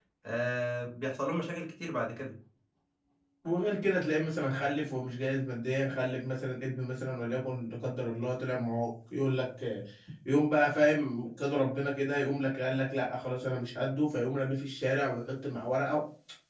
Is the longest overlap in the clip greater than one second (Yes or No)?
No